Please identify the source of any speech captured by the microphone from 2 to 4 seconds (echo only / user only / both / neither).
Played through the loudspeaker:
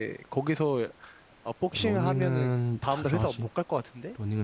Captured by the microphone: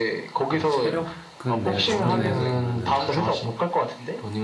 both